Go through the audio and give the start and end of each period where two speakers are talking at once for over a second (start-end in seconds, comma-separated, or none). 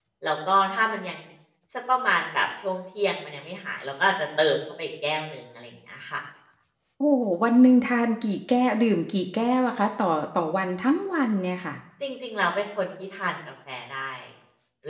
none